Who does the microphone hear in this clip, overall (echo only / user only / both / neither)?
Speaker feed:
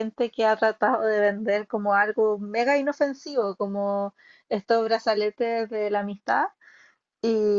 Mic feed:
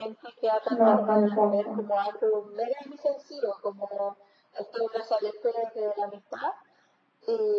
both